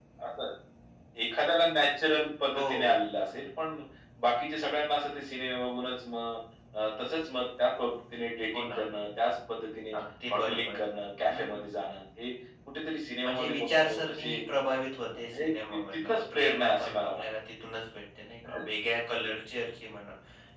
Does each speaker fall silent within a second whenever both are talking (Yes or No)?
No